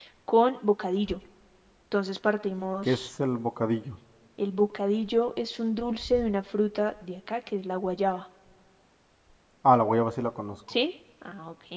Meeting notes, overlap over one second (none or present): none